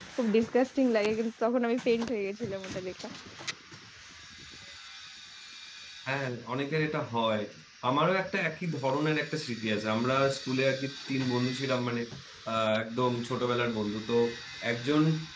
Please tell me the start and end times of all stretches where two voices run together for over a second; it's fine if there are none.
none

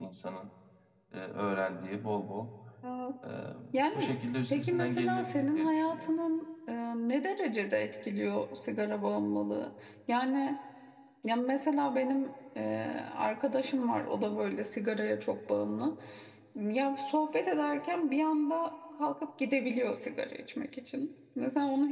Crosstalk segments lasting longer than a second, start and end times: 4.5-6.2

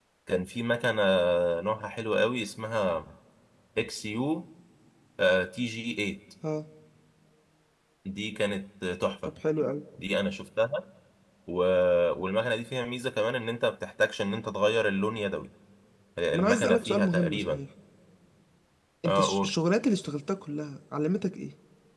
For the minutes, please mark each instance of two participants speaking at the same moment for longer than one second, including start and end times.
16.3-17.6

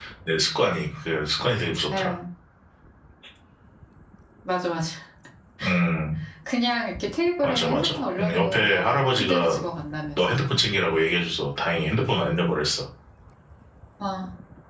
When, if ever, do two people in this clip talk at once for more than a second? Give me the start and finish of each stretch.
7.4-9.6

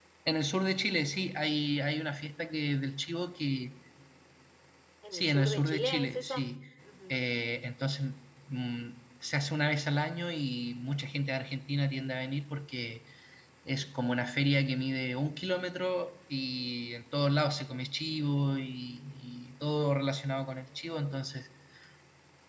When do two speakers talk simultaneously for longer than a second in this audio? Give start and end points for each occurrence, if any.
5.1-6.4

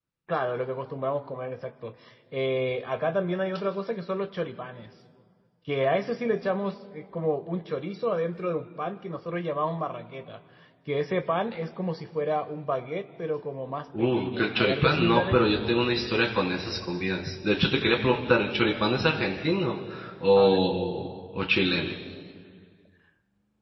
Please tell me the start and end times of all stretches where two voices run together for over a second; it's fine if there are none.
14.0-15.5

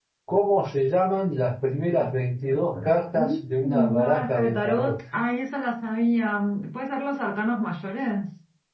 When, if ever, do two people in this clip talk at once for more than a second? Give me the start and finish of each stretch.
3.1-4.9

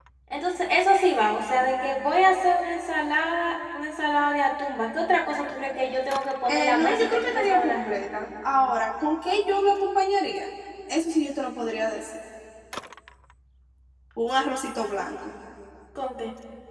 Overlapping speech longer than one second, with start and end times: 6.5-8.0

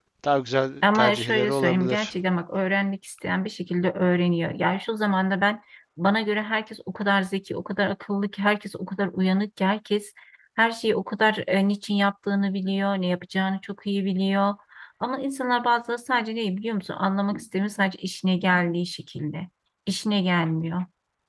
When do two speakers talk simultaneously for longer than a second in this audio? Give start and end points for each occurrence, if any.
0.8-2.1

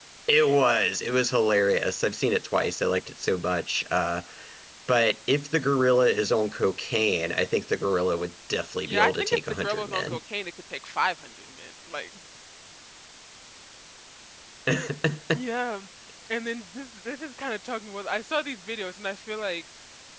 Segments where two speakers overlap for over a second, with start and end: 8.9-10.2

